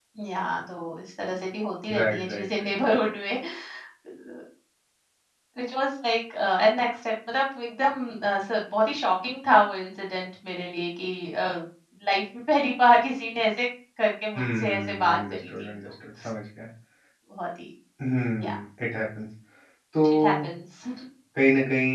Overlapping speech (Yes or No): Yes